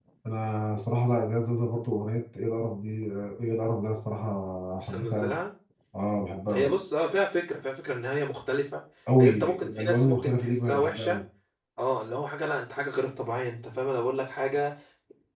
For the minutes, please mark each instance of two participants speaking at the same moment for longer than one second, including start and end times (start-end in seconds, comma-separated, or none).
9.2-11.2